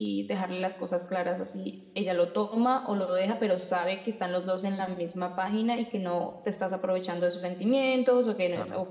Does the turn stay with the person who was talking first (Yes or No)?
Yes